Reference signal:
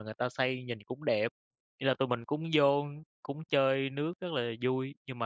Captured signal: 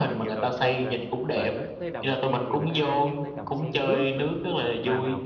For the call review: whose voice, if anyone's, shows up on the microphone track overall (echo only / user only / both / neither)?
both